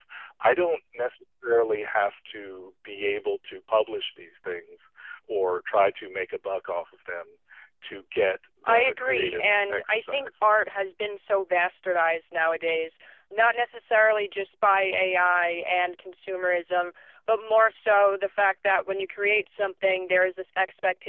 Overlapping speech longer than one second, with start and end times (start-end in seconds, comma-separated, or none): 8.7-10.4